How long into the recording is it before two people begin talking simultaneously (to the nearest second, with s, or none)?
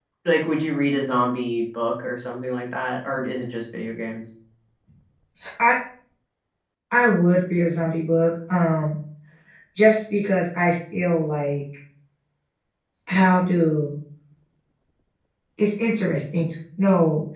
none